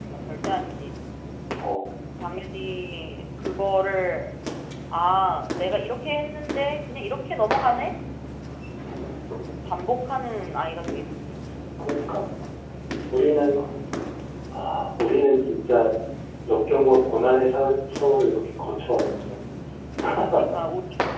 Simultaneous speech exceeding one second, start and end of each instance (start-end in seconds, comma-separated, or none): none